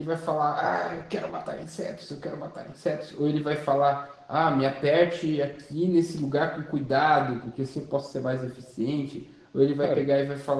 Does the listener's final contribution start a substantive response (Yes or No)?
No